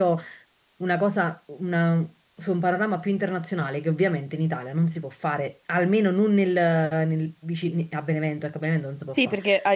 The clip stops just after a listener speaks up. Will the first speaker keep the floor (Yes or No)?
No